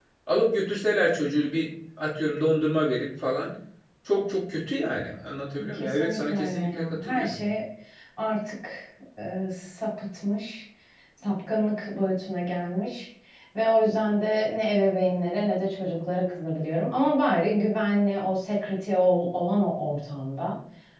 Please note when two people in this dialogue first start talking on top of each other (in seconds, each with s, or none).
5.6 s